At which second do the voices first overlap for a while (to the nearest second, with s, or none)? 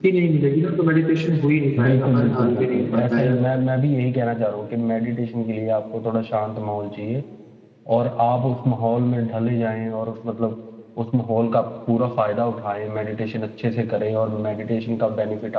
2 s